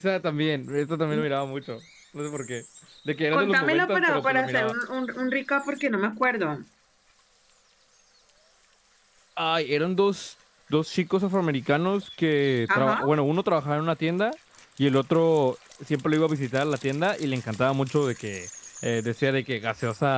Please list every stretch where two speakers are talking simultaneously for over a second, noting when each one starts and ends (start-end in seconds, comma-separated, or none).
3.3-4.7